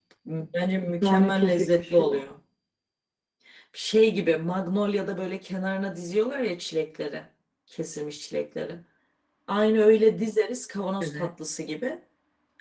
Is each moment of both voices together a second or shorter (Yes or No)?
No